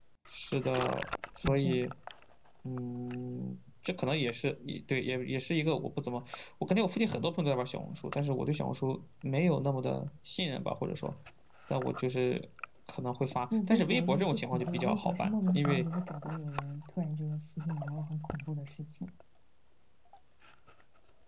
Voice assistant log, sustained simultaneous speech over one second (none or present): present